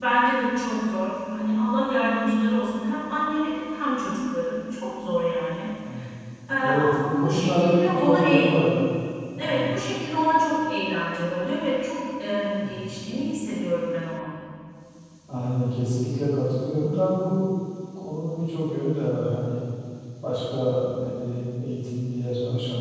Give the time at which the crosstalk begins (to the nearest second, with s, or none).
7 s